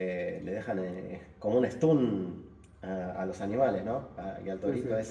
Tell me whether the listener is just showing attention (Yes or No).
Yes